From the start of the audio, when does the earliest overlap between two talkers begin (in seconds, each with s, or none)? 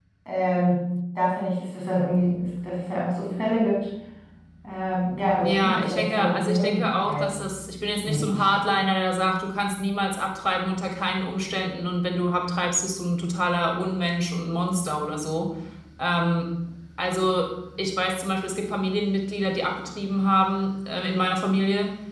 5.4 s